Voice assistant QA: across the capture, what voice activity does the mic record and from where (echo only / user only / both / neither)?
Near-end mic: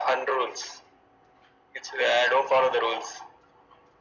echo only